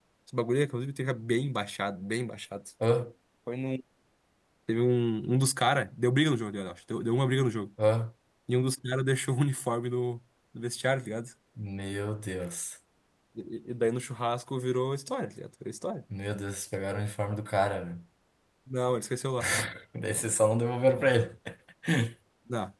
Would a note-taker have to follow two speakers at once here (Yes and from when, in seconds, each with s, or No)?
No